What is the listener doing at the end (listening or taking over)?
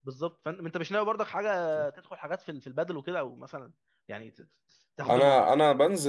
taking over